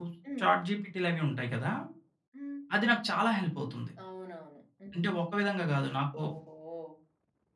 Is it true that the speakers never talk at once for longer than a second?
Yes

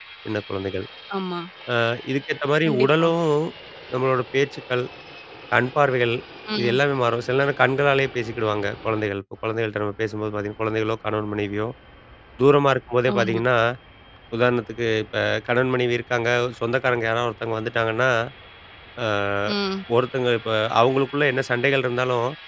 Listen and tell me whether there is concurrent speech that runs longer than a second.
No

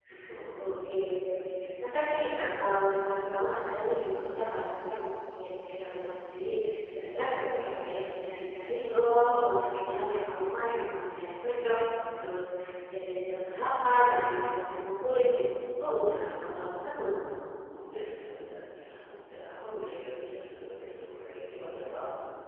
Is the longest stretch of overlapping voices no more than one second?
Yes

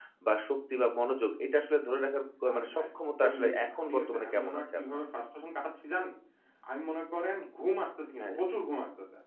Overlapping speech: Yes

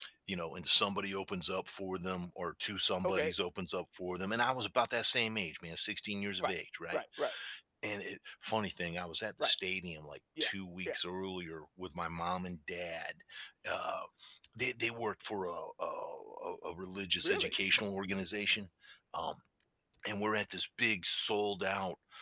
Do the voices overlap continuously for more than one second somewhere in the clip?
No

